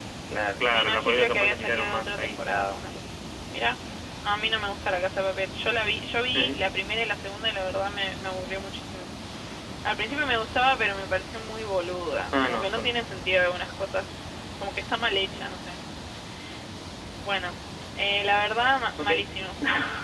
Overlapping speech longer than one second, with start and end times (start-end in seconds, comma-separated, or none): 0.6-2.4